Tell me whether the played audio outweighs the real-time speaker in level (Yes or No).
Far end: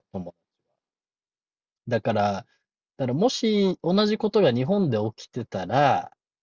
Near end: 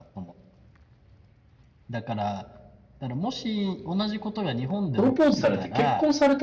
No